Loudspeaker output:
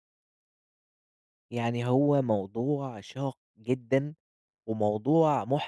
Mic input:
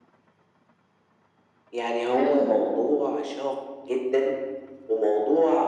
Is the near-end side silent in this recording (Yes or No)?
No